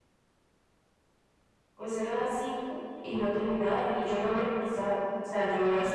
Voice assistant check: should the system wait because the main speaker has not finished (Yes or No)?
Yes